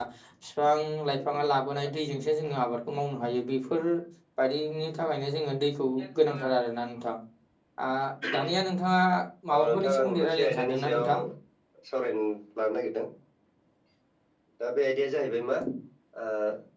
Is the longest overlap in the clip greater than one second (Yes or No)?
Yes